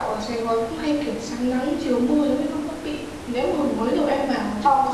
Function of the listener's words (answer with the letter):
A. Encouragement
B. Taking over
A